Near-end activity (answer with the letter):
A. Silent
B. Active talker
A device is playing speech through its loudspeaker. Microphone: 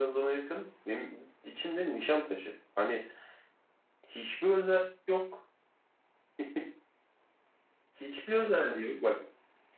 A